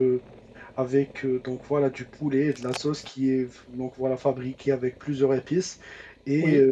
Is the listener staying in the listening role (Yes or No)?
Yes